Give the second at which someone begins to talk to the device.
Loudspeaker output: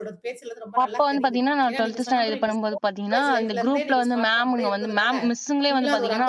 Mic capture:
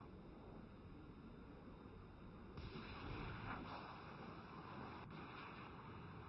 none

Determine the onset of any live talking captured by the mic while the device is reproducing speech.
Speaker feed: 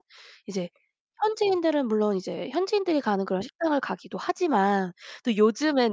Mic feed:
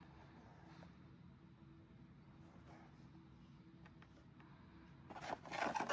none

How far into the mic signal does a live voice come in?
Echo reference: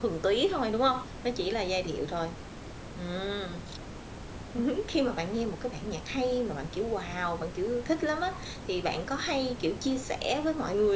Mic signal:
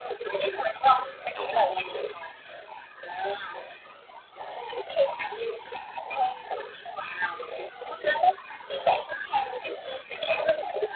1 s

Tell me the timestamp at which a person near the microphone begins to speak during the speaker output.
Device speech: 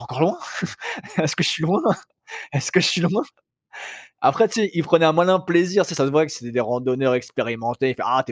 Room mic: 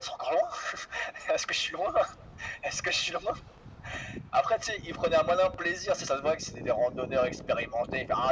none

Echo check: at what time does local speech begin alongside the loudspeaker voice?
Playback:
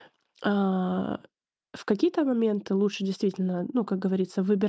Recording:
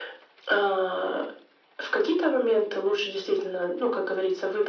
none

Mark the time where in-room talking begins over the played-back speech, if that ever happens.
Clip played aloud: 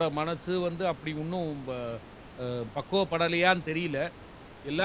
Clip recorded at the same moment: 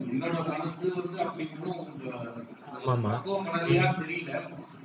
3 s

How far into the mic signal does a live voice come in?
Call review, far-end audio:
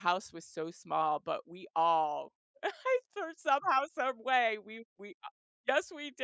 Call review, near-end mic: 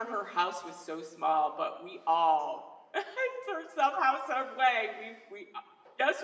none

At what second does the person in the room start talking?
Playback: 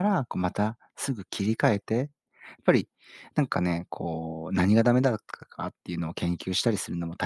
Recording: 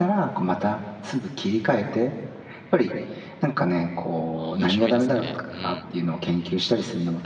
4 s

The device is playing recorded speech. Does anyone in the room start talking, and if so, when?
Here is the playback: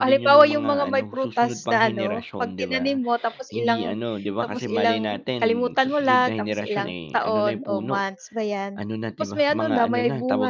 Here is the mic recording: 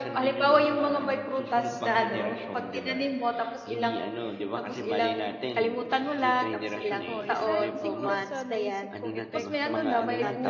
7 s

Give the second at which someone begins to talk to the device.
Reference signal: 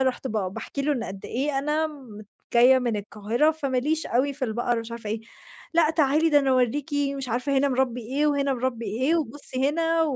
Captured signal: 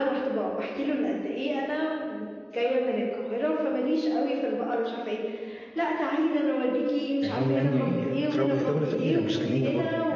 7 s

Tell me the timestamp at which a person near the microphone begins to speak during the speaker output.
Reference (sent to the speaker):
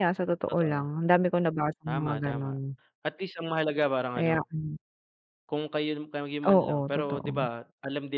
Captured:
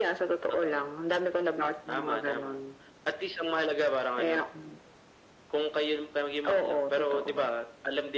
none

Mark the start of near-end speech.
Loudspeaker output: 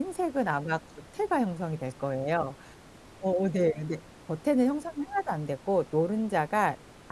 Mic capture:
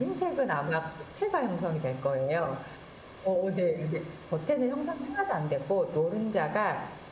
none

